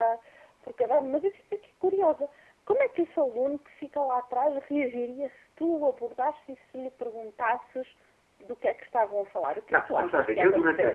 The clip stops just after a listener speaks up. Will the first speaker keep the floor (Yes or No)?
No